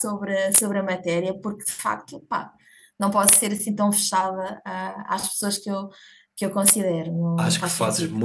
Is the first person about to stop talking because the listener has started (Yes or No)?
Yes